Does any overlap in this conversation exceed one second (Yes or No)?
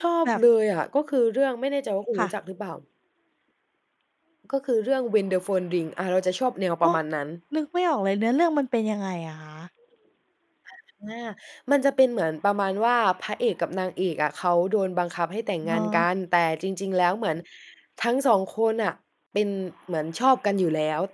No